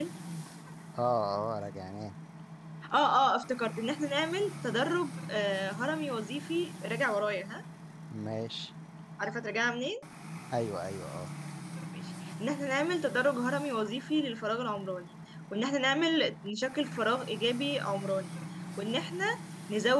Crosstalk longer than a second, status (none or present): none